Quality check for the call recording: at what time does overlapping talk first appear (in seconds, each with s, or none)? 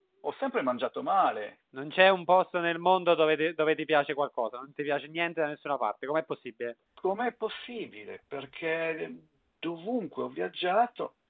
none